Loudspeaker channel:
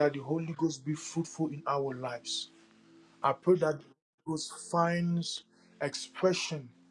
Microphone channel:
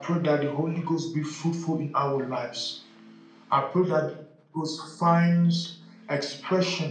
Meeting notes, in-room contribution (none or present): none